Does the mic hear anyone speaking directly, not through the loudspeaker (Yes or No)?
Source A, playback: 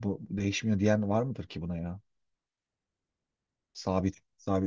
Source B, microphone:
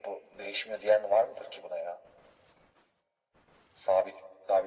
No